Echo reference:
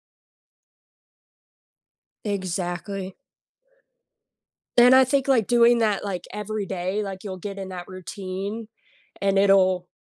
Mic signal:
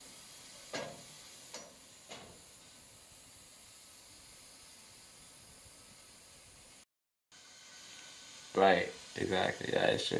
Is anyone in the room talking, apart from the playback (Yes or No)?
Yes